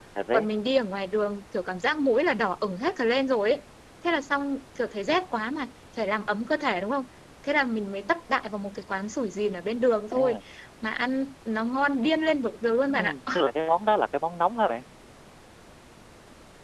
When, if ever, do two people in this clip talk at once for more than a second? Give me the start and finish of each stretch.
none

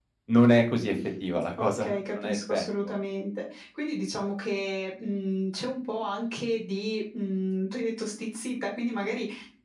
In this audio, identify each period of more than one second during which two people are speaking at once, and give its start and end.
1.6-3.0

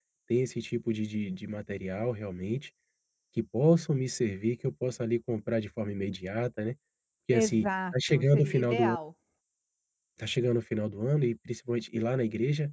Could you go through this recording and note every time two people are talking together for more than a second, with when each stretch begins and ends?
7.3-8.9

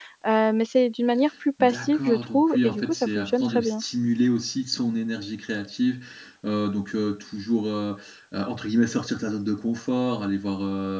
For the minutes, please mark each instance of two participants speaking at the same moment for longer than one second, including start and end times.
1.6-3.8

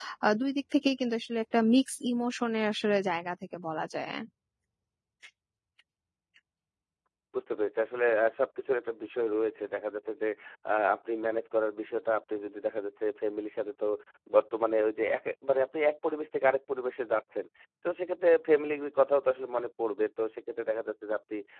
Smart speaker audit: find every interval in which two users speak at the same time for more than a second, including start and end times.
none

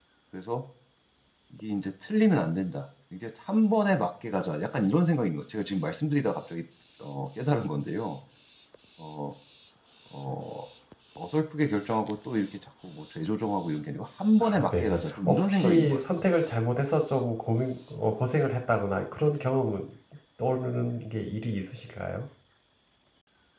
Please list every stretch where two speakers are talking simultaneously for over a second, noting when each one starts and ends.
14.4-16.3

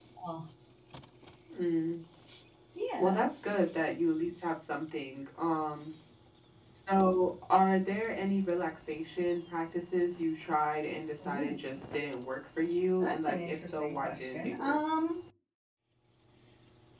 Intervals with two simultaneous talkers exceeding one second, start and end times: 13.0-14.8

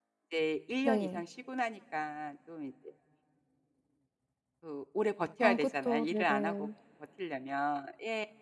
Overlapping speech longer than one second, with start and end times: 5.4-6.7

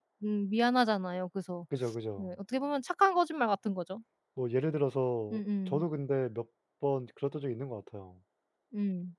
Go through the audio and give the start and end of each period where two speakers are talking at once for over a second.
none

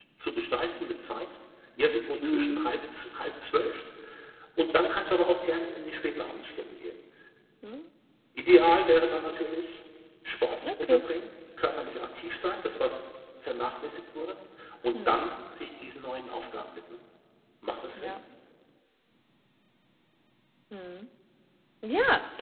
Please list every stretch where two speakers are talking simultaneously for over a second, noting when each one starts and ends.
none

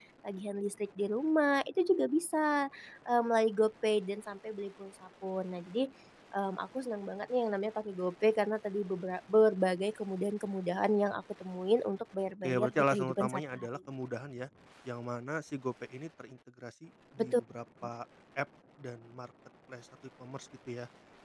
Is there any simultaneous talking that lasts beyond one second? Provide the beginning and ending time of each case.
12.4-13.7

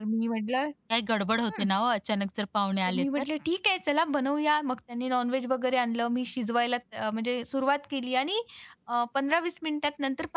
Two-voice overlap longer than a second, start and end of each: none

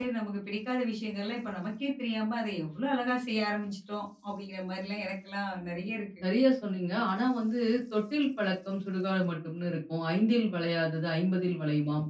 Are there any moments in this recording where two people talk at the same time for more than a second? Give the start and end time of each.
none

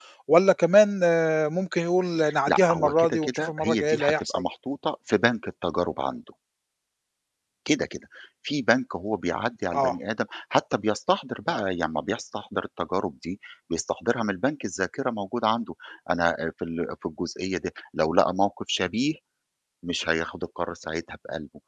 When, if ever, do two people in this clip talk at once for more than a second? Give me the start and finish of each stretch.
2.5-4.4

